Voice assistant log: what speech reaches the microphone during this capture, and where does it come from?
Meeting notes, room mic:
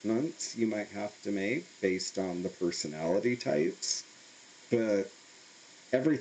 echo only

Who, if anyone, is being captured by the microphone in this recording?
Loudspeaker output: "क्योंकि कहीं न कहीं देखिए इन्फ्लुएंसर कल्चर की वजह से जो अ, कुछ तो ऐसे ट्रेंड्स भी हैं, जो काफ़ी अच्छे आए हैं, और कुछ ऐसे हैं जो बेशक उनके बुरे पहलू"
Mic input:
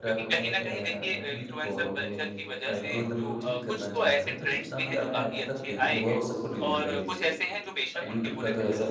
both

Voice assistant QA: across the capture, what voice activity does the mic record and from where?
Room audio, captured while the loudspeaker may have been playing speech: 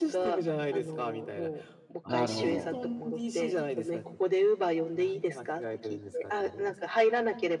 both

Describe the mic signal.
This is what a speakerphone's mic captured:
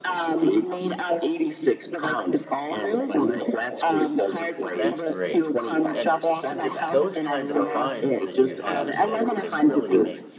both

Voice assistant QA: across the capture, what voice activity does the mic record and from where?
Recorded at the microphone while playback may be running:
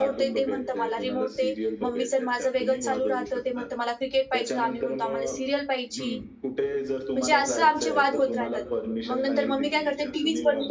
both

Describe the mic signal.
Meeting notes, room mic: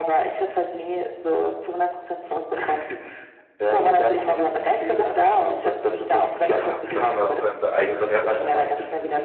both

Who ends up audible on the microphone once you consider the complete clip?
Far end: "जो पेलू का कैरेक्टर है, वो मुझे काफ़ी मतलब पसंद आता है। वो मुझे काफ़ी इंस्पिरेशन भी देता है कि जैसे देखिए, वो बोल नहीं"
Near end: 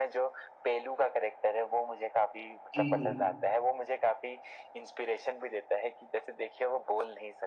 both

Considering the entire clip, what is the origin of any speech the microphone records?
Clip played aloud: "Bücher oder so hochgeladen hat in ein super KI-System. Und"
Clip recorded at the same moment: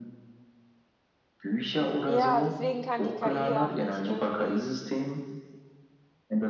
both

